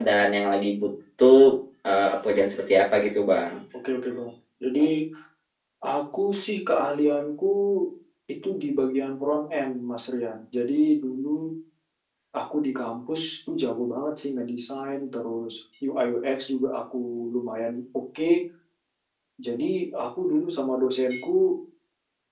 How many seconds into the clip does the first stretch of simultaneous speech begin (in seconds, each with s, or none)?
none